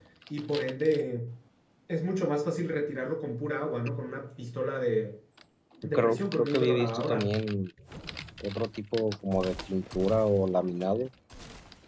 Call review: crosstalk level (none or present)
present